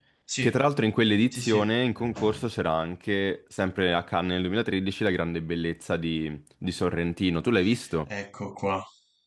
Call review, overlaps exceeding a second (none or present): none